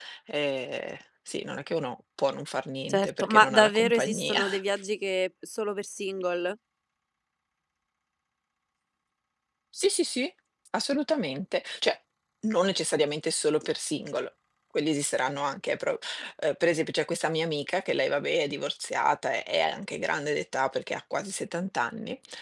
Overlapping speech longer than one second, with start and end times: 2.9-4.4

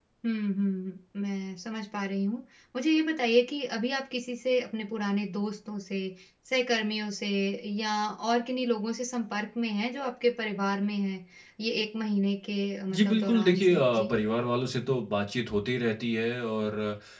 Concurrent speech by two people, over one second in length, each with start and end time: 12.9-14.1

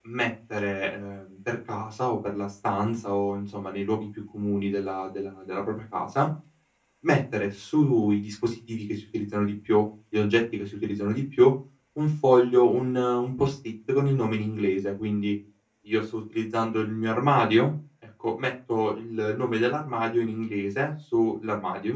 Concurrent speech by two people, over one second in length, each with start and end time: none

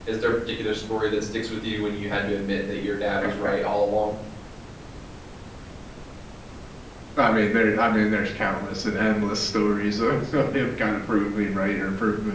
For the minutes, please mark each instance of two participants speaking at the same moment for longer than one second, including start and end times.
none

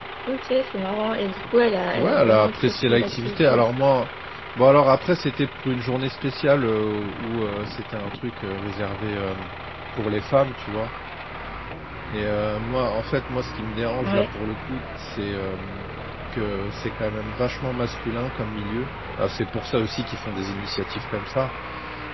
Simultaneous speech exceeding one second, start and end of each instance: 1.9-3.6

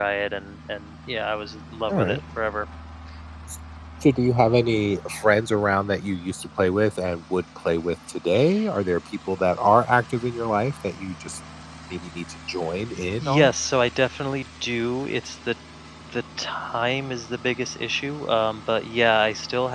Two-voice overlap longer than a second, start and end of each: none

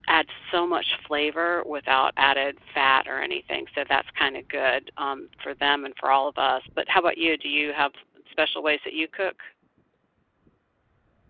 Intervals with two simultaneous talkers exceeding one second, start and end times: none

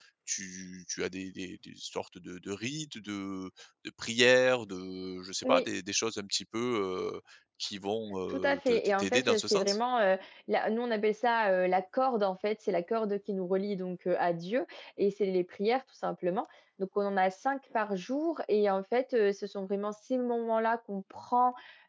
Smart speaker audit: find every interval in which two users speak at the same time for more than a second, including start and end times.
8.3-9.8

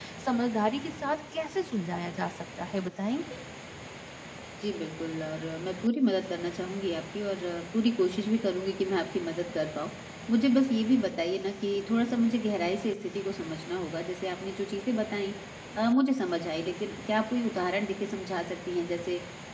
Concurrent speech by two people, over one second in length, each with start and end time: none

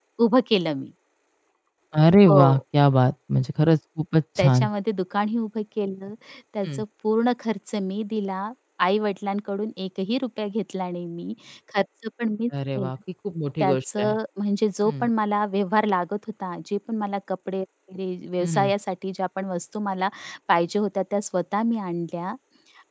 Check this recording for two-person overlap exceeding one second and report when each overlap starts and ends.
none

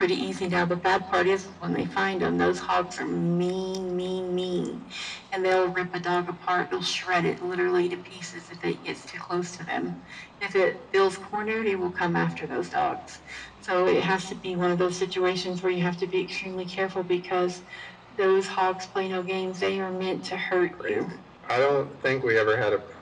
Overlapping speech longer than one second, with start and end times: none

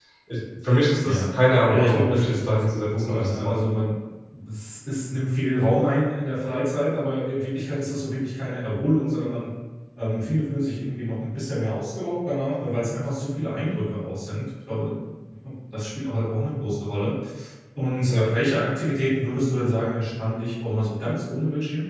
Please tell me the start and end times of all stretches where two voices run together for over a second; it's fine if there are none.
1.7-3.7

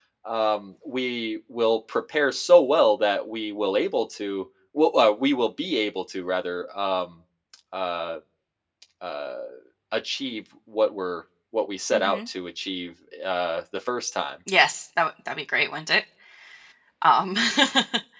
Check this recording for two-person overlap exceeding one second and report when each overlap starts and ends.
none

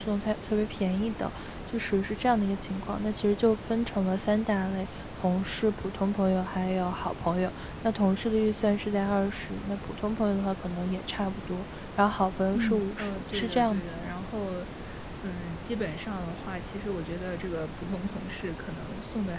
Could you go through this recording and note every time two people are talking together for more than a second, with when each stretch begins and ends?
12.5-14.1

